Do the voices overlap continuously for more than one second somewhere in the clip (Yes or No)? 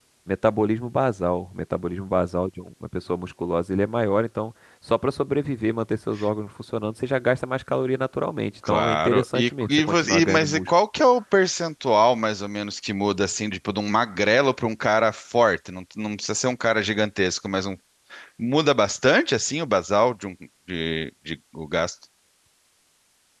Yes